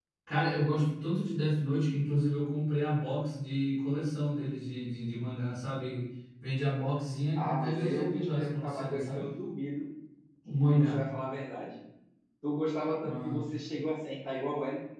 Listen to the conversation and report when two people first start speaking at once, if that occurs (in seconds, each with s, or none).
7.4 s